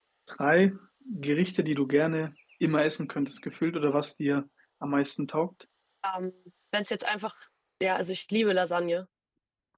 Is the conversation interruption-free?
Yes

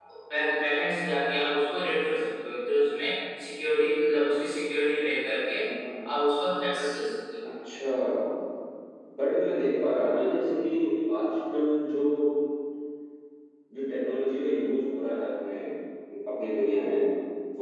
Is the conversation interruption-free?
Yes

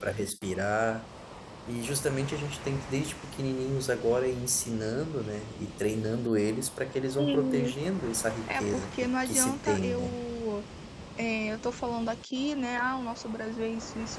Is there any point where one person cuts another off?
Yes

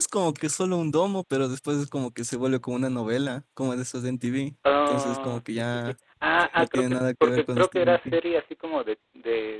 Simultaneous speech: Yes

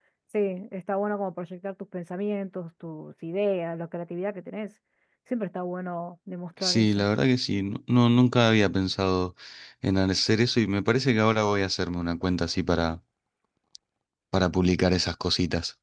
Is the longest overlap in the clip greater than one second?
No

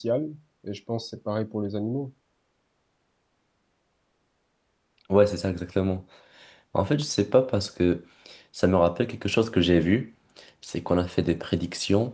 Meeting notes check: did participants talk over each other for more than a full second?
No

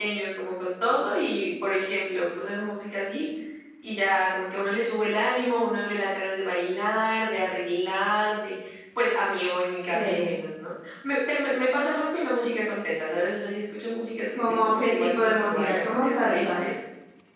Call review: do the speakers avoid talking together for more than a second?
No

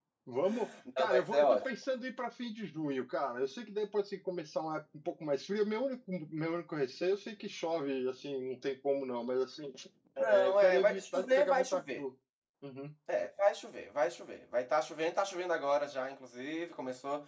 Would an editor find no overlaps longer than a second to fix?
No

